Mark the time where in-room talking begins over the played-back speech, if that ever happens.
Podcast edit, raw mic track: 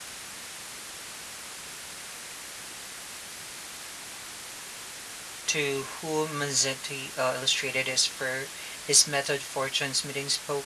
5.5 s

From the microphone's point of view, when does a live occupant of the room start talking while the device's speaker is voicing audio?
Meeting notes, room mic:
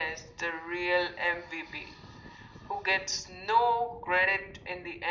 none

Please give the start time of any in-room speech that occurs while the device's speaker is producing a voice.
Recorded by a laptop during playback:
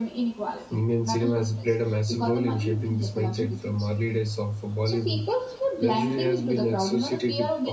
0.7 s

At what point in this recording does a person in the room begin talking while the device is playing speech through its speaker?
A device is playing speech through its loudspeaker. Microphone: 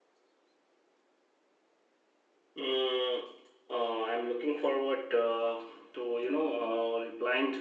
2.6 s

